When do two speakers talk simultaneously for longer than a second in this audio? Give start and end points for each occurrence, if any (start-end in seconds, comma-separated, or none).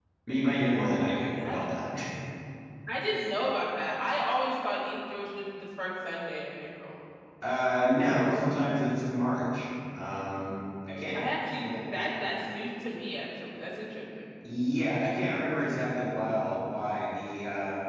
none